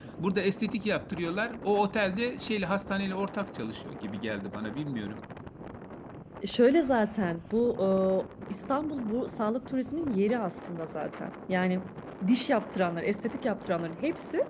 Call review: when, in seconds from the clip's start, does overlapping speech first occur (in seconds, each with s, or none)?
none